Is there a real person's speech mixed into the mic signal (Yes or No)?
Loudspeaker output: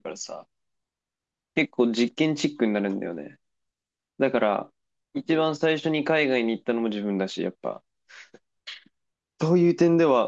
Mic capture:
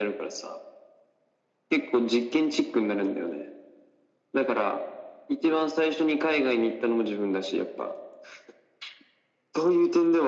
No